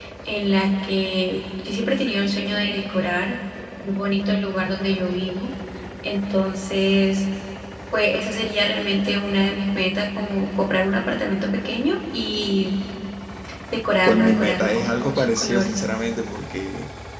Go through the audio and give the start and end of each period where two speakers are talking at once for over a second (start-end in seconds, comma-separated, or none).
14.1-15.8